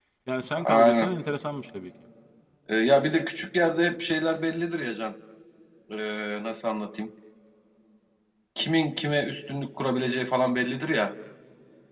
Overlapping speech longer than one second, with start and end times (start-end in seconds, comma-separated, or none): none